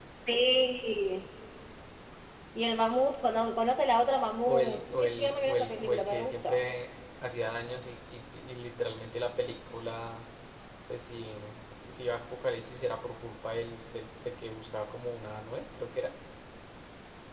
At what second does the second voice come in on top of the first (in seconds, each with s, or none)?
4.4 s